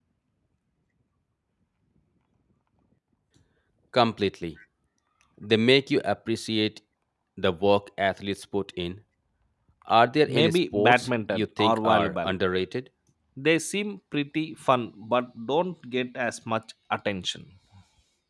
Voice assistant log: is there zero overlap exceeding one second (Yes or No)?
No